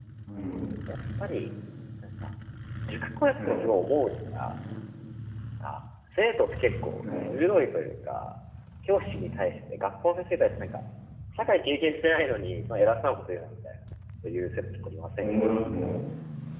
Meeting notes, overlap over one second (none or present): none